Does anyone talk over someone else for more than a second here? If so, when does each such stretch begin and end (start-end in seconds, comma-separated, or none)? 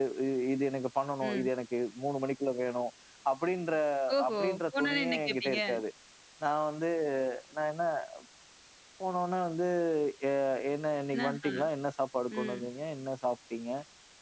4.3-5.6